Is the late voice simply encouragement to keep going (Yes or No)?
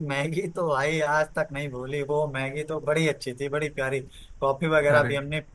Yes